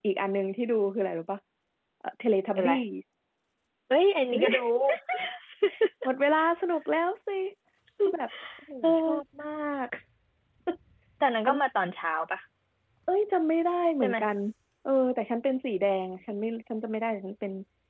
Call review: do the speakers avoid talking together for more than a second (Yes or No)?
Yes